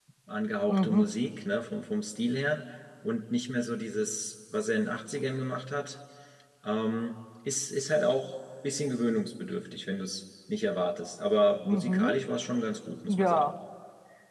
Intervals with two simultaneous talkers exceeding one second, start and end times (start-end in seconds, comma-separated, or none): none